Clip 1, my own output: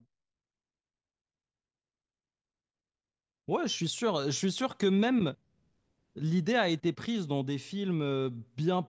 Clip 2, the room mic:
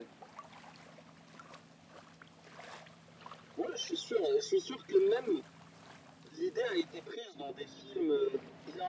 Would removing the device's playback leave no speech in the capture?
Yes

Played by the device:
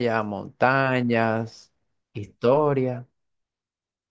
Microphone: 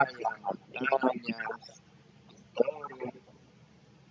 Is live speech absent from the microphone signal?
Yes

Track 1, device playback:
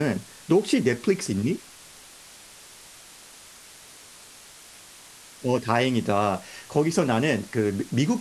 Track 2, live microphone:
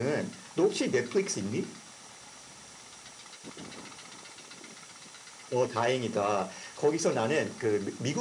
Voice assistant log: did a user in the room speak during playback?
No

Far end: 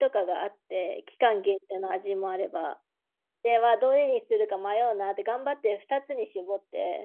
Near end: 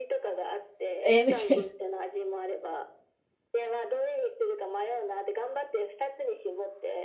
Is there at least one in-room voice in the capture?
Yes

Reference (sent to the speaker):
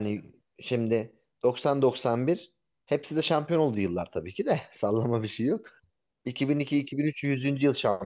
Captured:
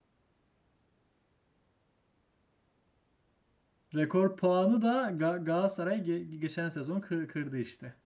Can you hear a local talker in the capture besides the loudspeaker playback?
Yes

